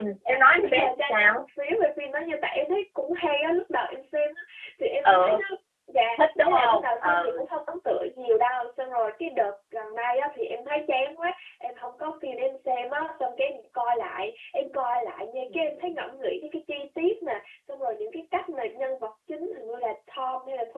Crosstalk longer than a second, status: present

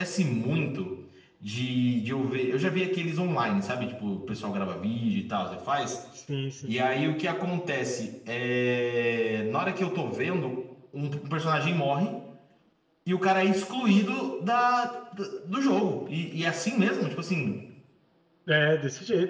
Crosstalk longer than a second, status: none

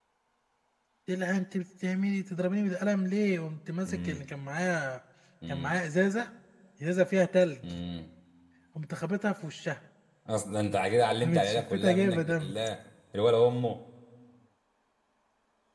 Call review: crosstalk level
present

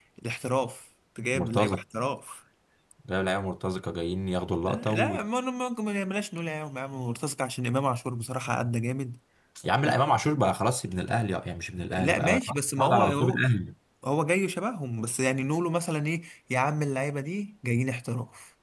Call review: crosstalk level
present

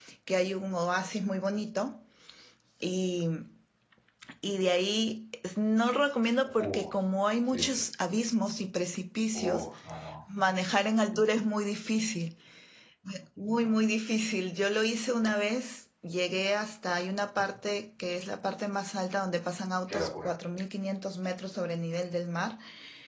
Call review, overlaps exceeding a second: none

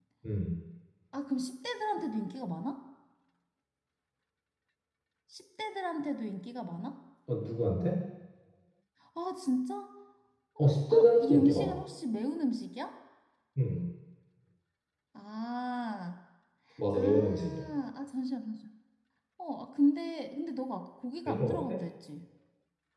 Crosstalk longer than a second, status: present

